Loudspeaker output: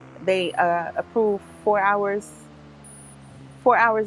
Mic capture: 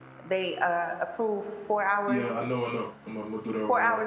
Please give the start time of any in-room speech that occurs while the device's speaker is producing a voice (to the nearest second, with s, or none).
2 s